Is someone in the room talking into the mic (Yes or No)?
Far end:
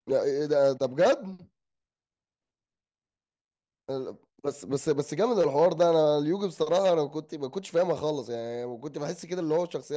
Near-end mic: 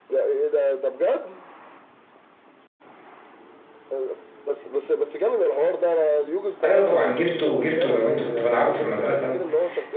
Yes